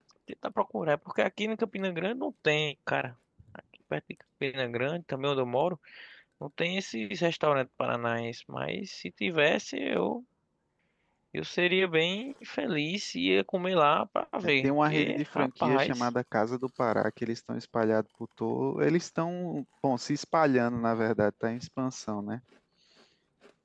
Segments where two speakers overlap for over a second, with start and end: 14.6-16.1

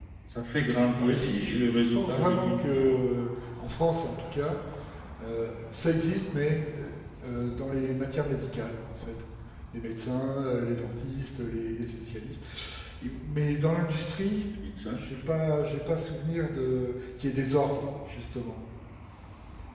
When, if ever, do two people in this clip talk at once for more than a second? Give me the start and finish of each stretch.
1.0-3.0

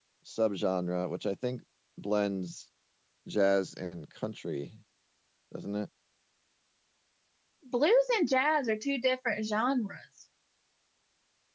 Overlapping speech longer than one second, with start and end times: none

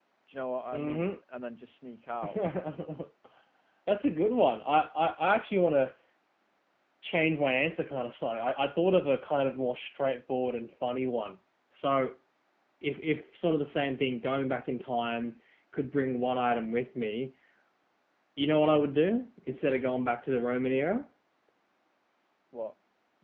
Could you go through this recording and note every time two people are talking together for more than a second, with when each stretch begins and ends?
none

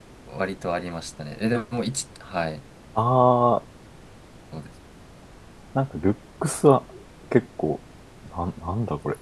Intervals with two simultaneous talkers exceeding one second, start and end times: none

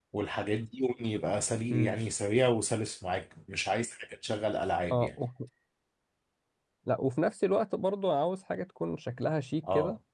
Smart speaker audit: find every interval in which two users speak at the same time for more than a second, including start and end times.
none

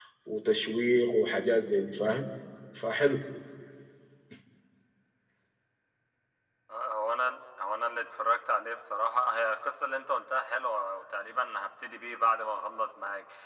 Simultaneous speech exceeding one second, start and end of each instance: none

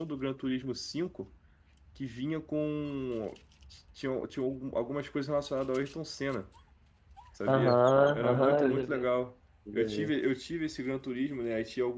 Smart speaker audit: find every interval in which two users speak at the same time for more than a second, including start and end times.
7.5-9.0

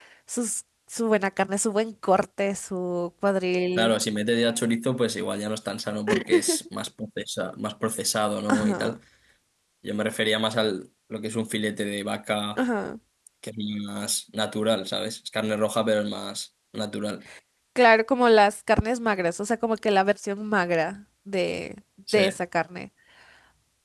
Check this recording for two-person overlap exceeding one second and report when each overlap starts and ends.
none

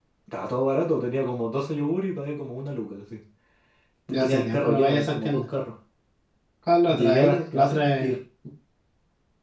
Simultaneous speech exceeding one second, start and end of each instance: 4.1-5.4, 6.9-8.1

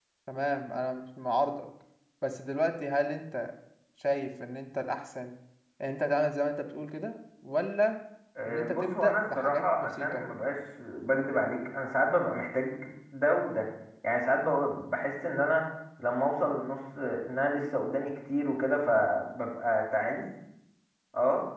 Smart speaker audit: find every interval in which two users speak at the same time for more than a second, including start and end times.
8.4-10.2

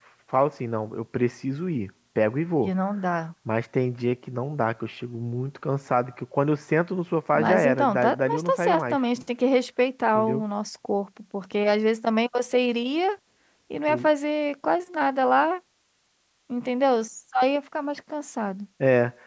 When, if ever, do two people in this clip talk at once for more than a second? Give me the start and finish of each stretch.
7.3-9.0

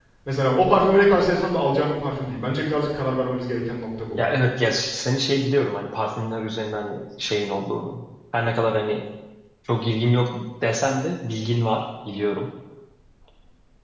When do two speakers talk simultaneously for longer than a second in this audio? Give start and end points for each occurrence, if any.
none

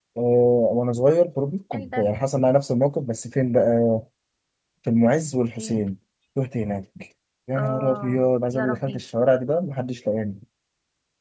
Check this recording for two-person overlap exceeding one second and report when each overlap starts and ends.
7.5-9.0

